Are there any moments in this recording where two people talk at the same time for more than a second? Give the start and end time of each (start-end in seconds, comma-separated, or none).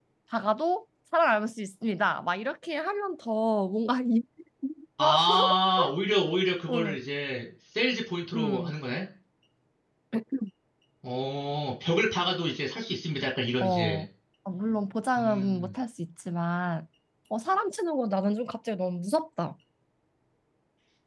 none